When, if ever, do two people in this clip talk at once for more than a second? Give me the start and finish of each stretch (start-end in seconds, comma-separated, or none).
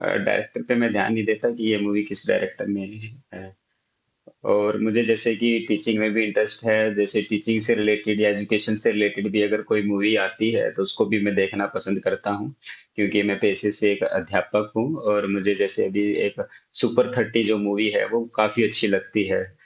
none